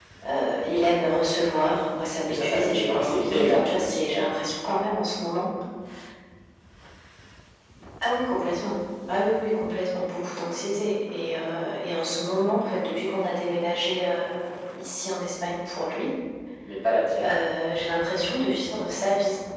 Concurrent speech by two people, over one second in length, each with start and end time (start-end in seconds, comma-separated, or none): 2.3-4.4